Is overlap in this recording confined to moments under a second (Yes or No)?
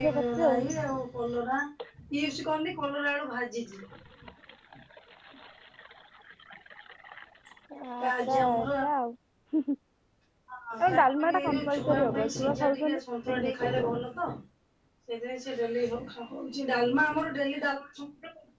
No